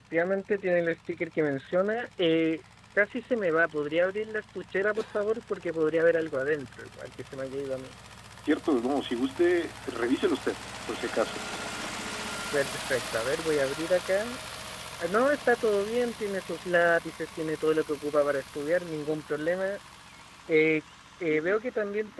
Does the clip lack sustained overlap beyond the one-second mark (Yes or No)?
Yes